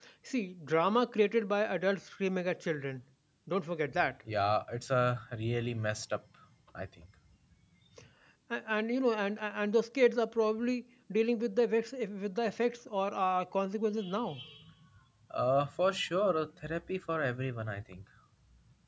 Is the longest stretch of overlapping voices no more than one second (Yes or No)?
Yes